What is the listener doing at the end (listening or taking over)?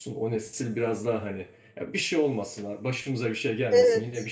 listening